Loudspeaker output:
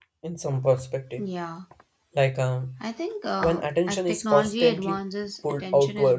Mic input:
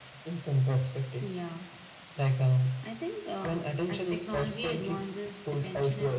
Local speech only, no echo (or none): none